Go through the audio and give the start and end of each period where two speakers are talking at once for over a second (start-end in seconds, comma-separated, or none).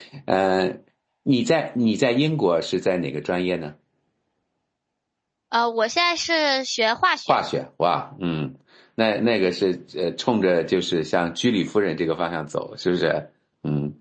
none